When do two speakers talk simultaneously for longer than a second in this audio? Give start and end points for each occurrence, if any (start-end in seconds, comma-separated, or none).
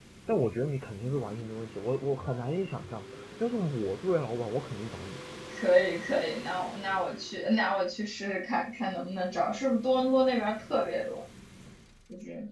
none